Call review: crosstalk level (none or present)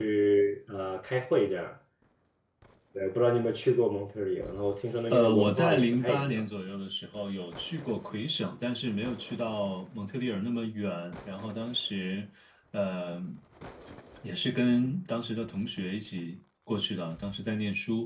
present